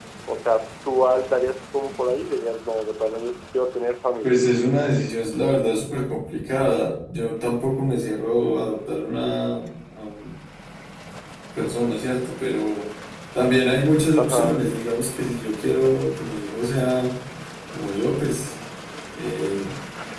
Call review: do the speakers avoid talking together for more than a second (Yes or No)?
Yes